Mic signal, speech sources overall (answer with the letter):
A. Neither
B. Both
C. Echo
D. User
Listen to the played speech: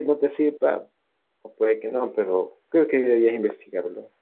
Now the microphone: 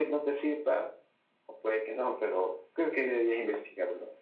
C